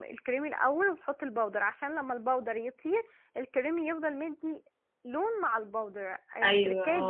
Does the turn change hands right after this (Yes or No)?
No